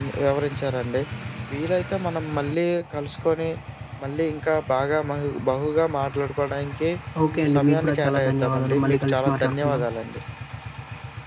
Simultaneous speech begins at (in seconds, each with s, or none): 7.6 s